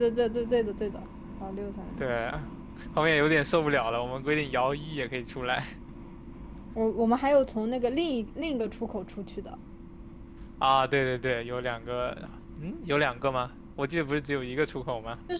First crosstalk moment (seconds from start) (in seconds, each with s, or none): none